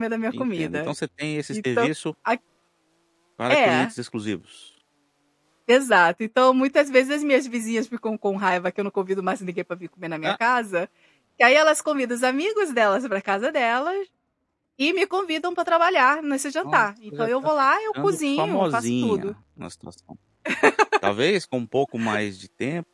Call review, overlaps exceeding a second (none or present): present